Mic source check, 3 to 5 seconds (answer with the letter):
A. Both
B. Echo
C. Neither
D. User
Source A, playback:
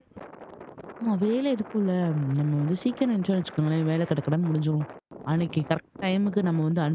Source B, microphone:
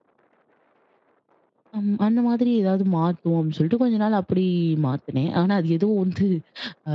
D